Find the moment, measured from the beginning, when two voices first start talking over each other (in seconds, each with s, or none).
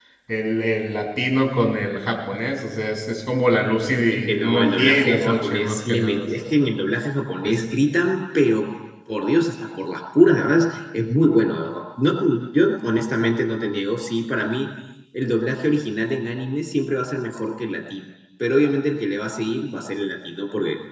4.1 s